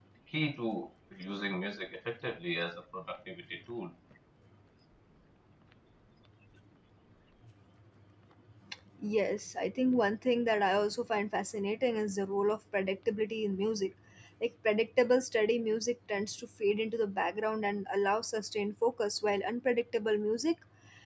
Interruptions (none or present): none